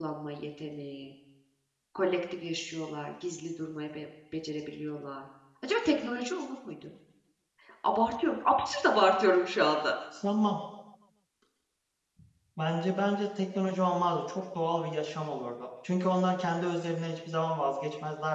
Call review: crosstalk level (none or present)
none